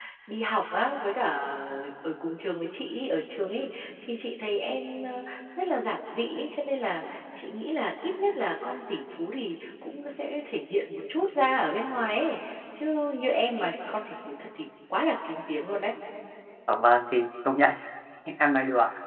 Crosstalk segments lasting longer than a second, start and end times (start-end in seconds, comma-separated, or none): none